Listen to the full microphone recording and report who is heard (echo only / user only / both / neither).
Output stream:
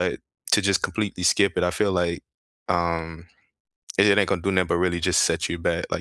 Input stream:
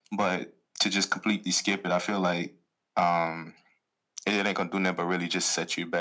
echo only